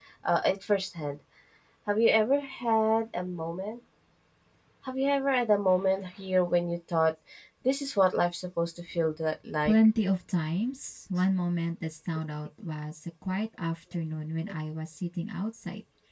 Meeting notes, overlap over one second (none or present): none